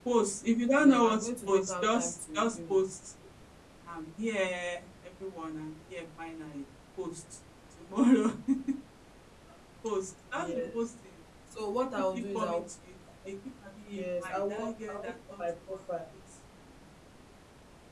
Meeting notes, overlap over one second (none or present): present